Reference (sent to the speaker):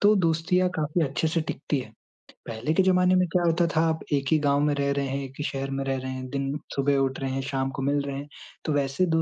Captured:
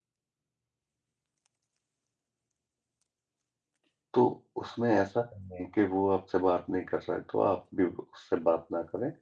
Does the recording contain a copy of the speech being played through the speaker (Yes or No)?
No